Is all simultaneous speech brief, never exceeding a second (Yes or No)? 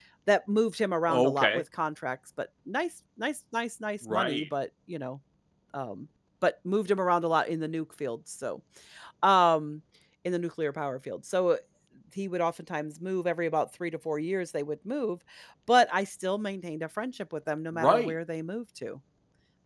Yes